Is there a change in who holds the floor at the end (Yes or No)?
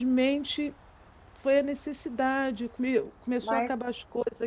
No